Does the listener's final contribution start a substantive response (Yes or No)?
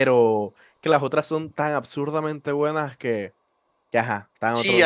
Yes